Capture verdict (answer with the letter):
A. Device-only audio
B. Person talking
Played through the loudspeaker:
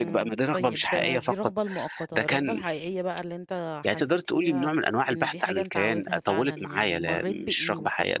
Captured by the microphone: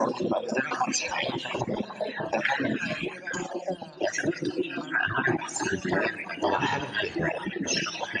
B